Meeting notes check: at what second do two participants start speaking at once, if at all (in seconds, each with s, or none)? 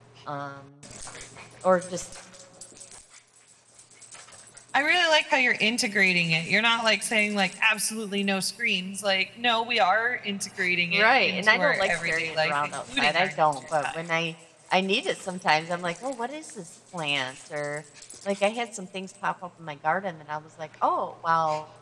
10.9 s